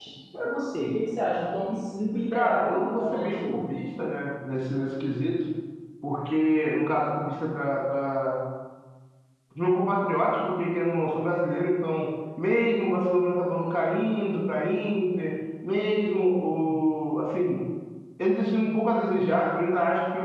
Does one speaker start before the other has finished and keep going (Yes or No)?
Yes